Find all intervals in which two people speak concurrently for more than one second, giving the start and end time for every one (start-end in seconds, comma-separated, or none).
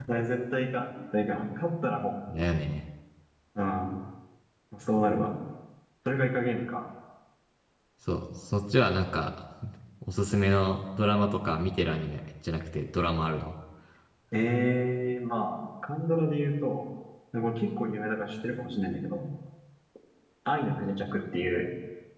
none